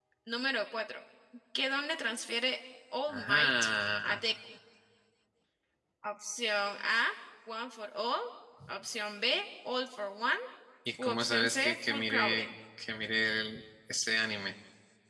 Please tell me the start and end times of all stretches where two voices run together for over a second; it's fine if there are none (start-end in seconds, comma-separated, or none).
11.0-12.5